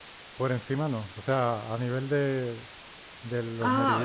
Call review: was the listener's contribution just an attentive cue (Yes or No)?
No